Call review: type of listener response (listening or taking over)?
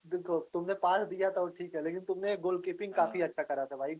listening